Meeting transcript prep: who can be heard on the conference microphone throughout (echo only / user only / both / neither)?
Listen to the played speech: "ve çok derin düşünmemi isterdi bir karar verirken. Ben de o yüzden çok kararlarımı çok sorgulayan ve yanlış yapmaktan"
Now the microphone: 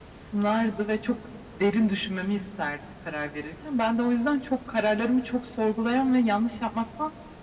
echo only